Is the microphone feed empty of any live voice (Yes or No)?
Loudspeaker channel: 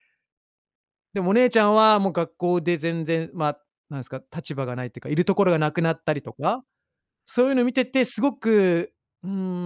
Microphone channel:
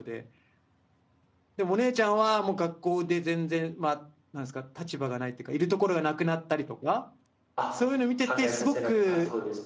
No